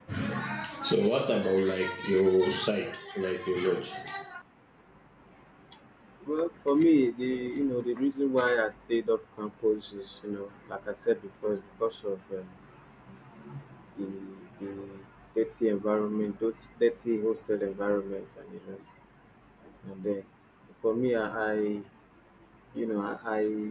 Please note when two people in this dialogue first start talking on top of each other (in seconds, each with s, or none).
none